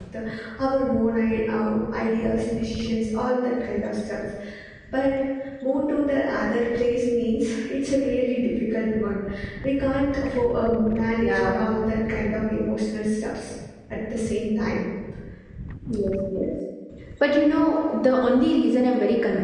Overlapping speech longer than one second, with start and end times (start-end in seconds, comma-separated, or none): none